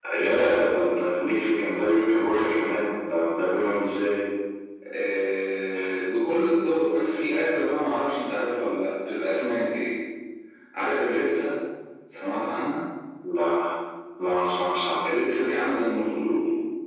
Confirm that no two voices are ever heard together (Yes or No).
Yes